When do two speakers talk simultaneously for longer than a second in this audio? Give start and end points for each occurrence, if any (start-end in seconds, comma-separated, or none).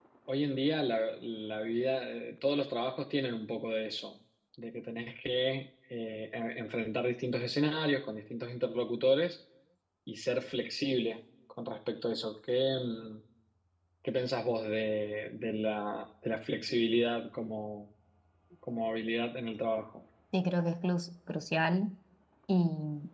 none